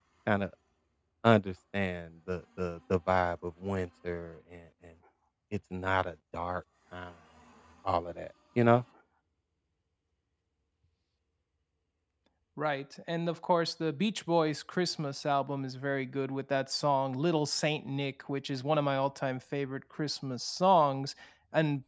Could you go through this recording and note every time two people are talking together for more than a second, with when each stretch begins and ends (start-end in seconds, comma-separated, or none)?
none